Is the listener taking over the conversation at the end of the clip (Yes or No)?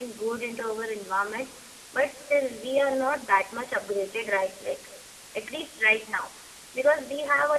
No